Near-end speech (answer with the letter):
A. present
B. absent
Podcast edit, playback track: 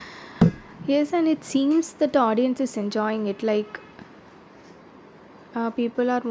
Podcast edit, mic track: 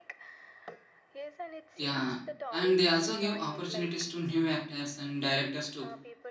A